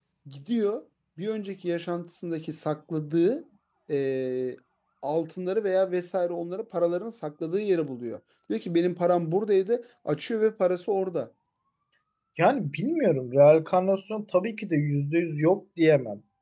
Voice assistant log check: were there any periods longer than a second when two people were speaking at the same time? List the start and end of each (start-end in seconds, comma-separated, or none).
none